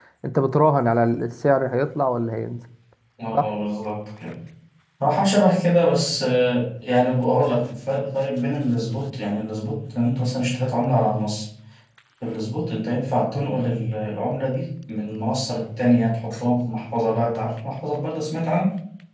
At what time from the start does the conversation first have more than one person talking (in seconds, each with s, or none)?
none